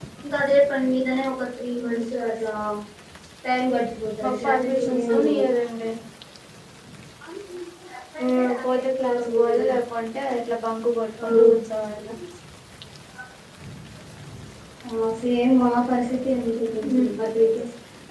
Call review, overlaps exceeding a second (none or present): present